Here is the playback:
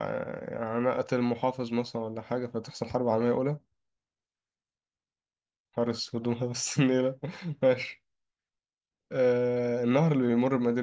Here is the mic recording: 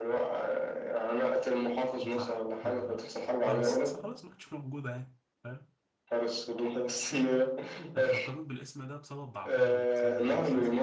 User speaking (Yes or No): Yes